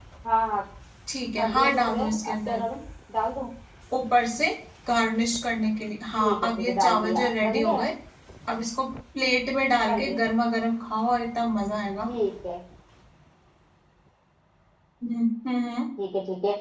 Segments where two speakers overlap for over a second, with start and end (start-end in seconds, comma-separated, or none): 1.4-2.6, 6.2-7.9